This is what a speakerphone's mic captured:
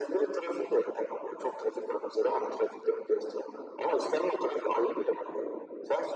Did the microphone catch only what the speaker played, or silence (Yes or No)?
Yes